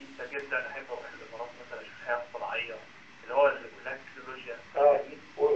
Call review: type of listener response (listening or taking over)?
taking over